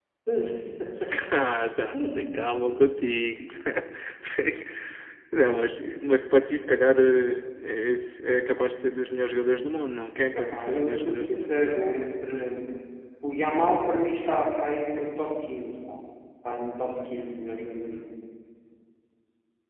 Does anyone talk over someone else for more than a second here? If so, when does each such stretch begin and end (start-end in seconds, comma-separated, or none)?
10.3-11.6